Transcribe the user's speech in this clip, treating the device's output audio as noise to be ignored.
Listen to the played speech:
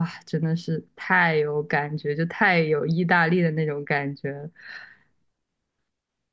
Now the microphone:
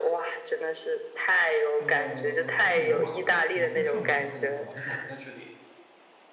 呃，它在罗马，我看我看上面说它在罗马，但是我不太确定。

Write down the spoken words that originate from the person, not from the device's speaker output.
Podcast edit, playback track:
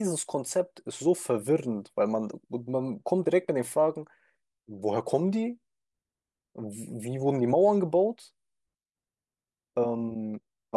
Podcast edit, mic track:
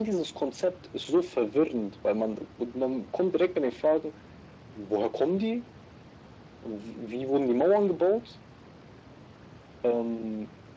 none

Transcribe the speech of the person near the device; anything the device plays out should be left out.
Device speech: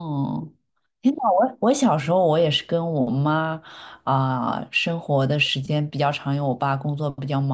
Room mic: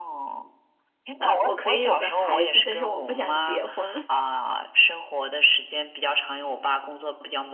呃，我可以有个孩子，但是我不想结婚。

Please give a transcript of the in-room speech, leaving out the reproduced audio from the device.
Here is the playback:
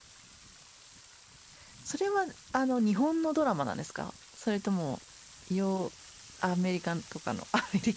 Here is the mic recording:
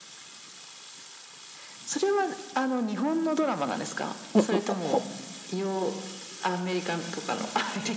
うんうんほ

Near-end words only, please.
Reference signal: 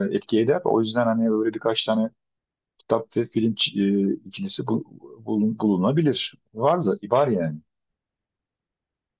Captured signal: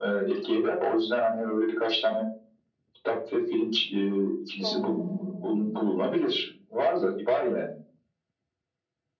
Hmm.

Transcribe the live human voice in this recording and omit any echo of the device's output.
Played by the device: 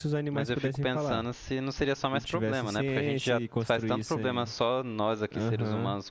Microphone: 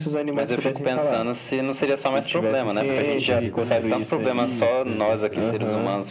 Ah, sim, perfeitamente. Isso, é, perfeito.

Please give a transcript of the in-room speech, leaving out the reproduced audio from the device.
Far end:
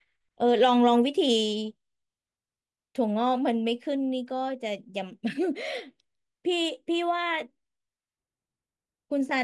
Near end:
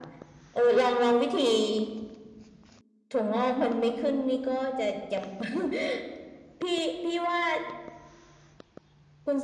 none

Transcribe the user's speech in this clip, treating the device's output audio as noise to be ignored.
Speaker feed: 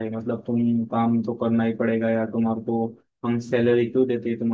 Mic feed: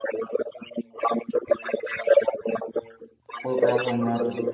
कोई प्रॉब्लम रहा तो

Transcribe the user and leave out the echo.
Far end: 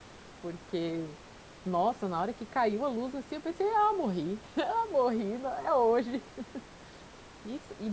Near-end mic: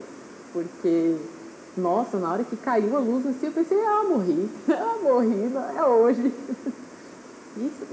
none

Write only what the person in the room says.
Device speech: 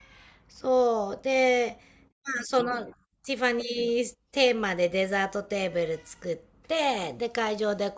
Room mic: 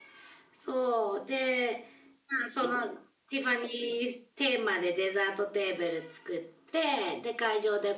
none

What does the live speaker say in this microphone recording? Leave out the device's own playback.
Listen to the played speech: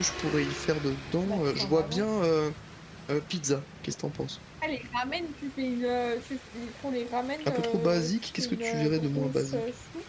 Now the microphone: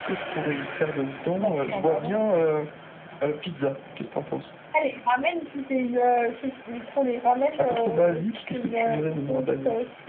none

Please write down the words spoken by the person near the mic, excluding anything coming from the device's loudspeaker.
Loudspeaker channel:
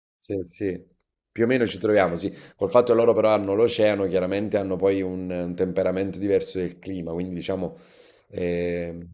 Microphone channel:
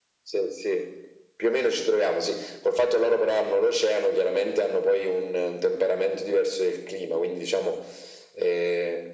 none

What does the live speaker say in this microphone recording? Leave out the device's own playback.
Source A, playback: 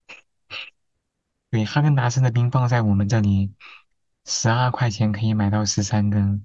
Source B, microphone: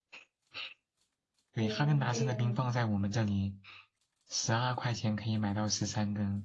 冰冰

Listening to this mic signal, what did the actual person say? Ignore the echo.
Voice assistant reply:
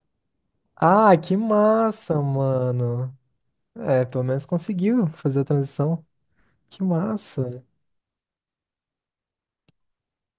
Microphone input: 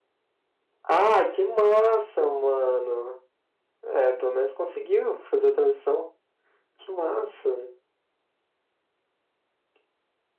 none

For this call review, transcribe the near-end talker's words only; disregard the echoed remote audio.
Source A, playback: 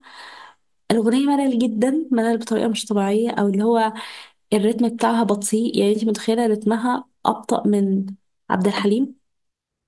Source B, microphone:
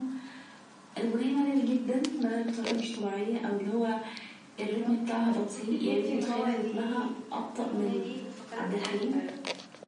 بالظبط ف- بصي تحسي ان هو ليه كل اغنيه ليه بتفكرك بفتره فعلا

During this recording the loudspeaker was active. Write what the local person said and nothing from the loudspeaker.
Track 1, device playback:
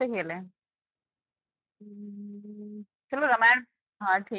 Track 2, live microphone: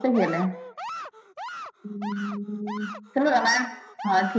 none

